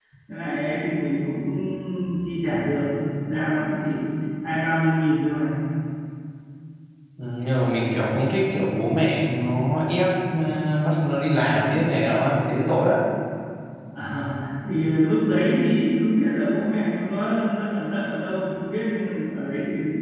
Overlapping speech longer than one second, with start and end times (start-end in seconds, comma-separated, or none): none